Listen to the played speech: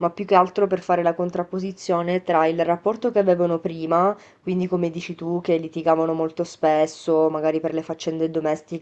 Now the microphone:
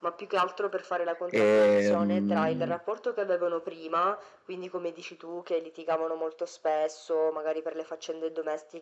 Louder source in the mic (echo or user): user